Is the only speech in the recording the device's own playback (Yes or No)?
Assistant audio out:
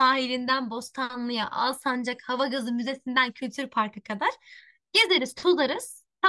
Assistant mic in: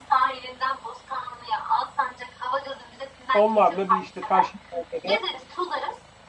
No